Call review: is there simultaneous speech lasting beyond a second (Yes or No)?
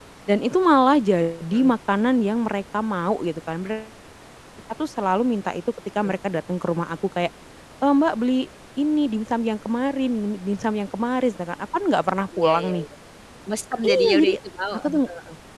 No